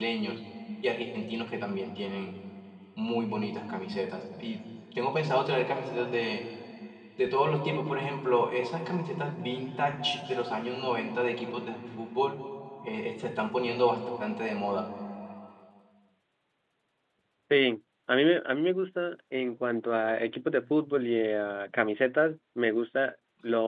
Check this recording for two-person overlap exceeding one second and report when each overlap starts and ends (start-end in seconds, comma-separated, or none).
none